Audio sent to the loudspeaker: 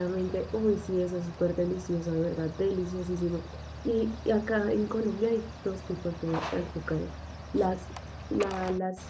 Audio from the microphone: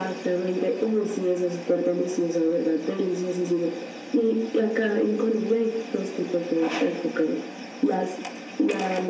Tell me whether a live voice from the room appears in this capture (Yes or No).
No